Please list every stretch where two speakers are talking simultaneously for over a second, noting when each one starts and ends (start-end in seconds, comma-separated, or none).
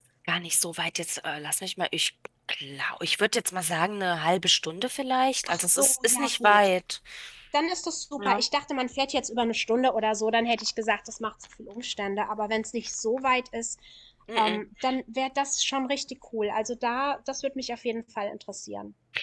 5.5-6.7